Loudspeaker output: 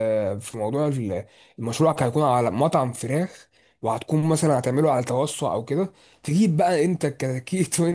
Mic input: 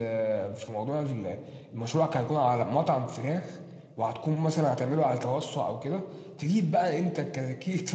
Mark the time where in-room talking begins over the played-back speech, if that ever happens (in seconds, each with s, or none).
none